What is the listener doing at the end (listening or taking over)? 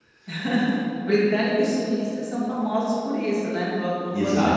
taking over